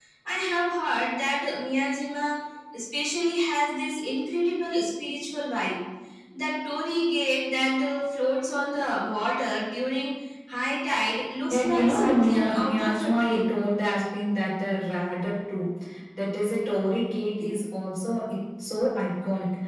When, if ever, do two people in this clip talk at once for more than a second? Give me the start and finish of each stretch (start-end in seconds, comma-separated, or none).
11.5-13.5